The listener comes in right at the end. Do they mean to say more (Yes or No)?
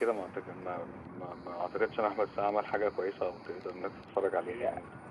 Yes